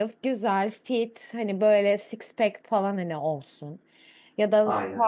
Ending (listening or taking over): listening